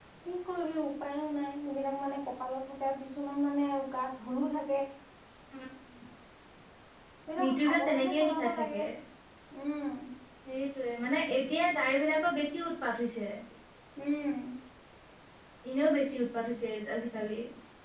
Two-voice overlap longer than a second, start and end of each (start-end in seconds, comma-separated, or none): 7.4-8.8